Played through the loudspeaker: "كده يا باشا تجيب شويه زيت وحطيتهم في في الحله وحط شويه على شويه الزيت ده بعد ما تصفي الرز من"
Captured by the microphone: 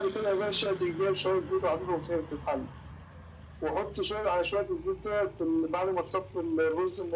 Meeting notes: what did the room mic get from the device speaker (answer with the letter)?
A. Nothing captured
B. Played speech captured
B